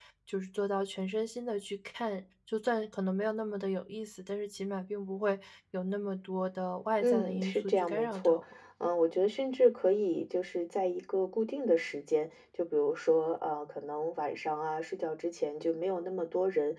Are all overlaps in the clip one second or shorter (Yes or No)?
No